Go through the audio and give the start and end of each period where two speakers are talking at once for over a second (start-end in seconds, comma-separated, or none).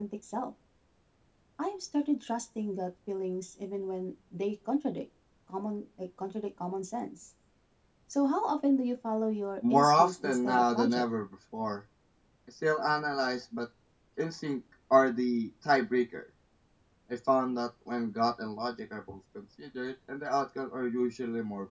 9.7-11.0